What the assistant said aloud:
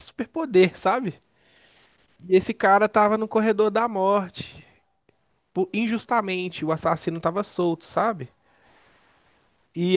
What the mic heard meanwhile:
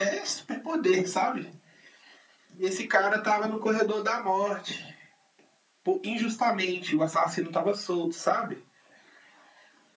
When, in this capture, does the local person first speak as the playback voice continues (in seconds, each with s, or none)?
none